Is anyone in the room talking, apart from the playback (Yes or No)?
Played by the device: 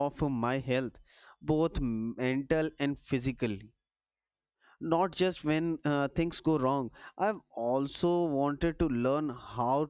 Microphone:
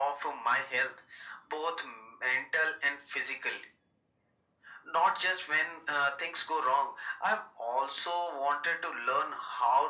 No